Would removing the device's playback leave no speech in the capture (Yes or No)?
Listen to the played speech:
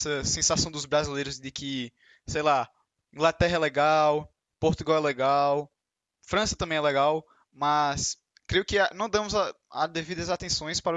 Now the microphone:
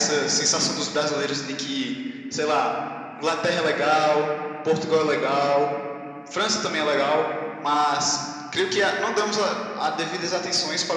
Yes